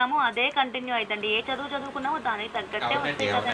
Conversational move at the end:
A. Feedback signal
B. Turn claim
B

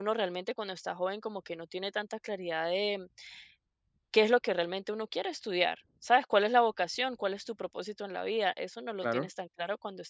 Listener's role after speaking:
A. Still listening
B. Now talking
A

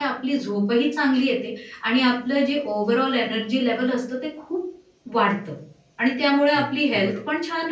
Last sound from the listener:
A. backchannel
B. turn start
A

